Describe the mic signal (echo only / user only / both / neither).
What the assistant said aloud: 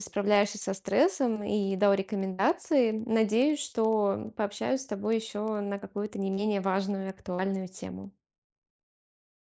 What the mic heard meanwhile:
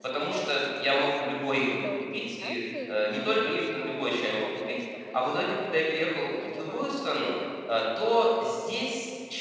both